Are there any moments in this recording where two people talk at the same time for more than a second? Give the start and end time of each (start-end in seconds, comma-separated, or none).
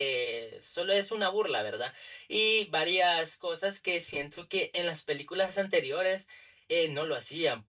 none